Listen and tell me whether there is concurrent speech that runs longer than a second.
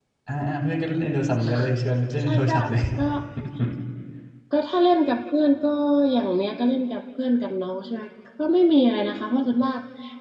No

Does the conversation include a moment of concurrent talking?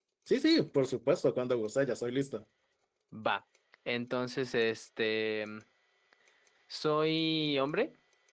No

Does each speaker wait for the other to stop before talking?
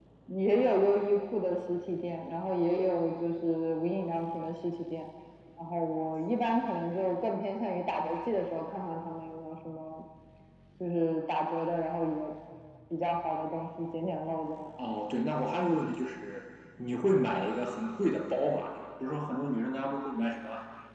Yes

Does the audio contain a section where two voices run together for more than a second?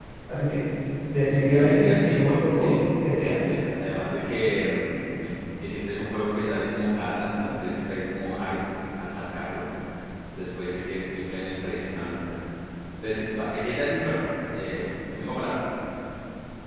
Yes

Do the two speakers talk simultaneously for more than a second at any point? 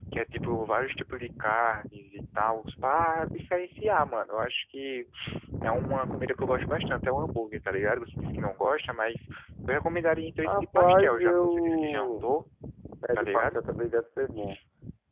Yes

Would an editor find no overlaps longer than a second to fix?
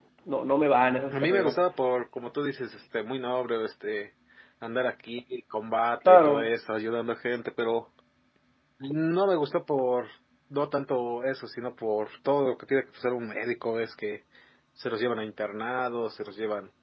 Yes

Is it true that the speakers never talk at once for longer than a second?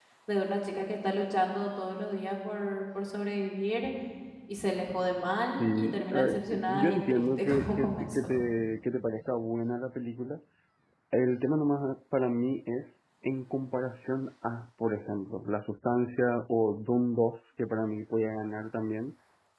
No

